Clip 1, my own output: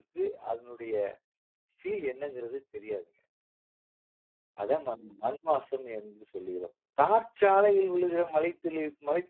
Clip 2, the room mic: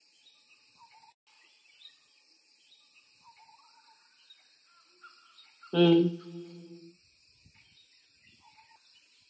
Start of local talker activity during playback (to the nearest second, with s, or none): 6 s